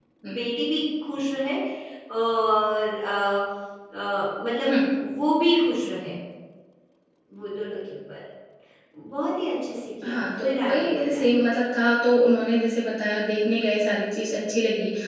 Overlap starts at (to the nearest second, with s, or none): 10 s